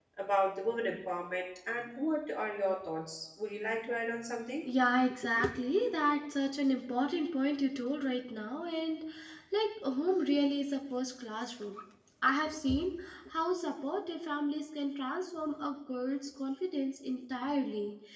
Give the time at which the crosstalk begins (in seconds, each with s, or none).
none